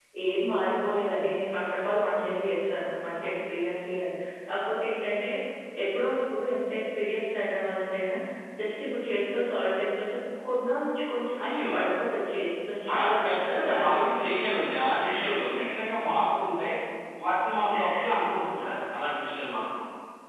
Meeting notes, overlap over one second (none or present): present